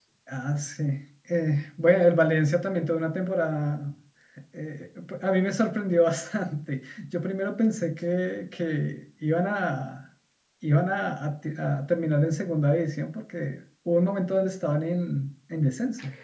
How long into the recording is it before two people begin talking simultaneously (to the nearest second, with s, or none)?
none